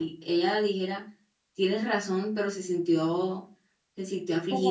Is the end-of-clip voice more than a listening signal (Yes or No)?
No